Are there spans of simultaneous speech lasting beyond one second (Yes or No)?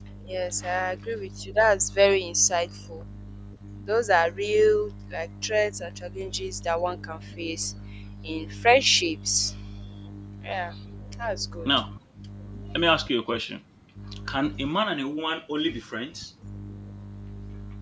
No